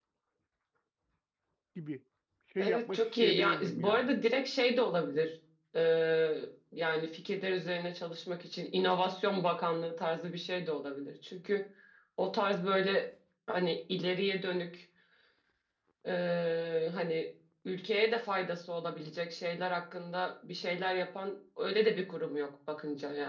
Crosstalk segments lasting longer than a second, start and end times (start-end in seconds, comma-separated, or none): 2.6-4.1